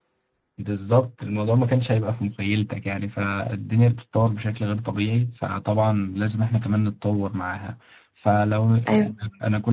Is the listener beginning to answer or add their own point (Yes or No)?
No